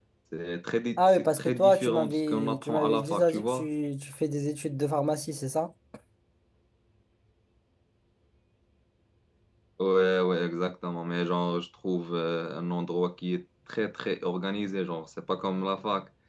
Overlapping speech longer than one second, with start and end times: 1.0-3.7

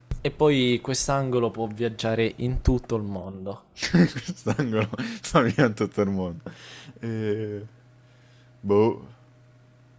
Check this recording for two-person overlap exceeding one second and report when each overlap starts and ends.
none

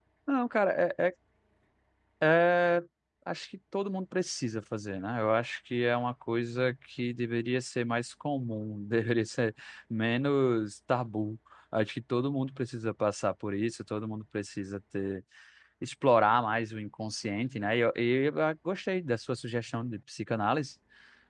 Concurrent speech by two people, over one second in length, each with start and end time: none

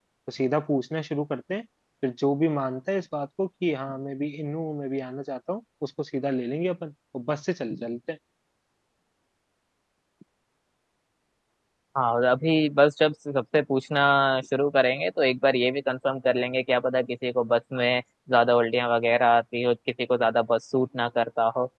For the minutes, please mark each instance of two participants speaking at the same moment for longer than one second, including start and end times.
none

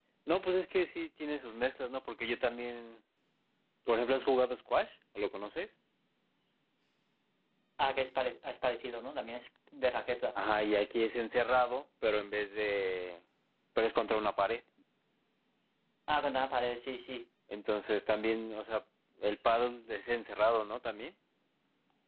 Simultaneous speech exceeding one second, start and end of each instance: none

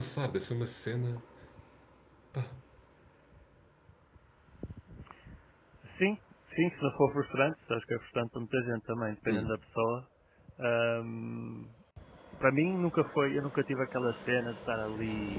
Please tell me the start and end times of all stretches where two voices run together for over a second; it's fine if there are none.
none

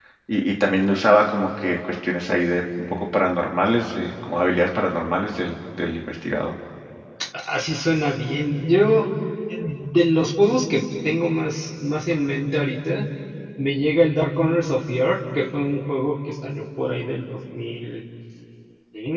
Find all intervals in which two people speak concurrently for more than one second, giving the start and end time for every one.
none

